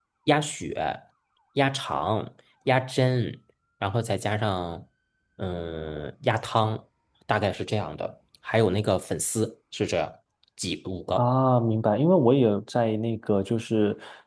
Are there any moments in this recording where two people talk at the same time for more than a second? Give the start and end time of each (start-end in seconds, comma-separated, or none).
none